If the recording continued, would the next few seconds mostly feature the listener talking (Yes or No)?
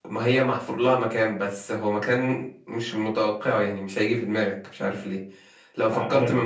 No